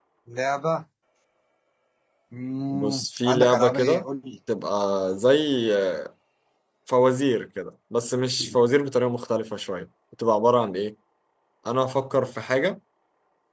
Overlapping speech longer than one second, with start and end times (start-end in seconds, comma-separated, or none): 2.7-4.0